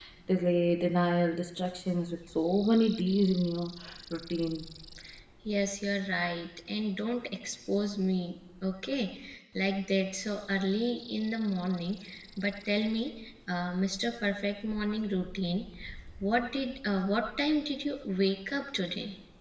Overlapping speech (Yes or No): No